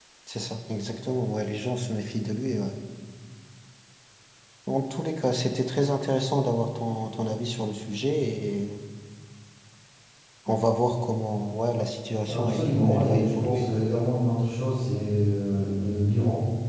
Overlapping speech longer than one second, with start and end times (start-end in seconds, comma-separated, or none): 12.3-13.7